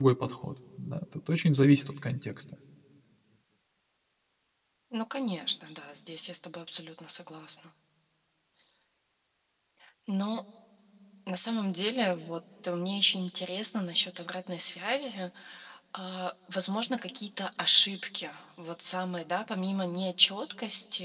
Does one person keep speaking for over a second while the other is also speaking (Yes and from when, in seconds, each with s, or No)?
No